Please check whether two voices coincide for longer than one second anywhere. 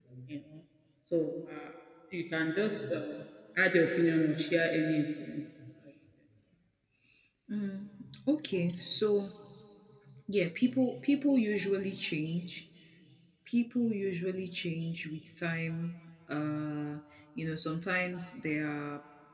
No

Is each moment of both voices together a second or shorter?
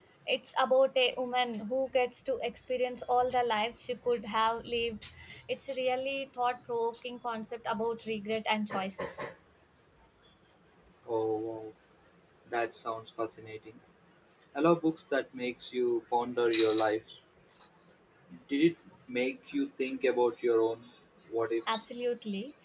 Yes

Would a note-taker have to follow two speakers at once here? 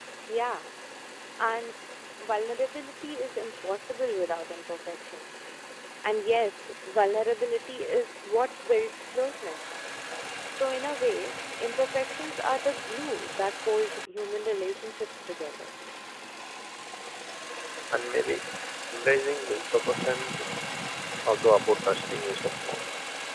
No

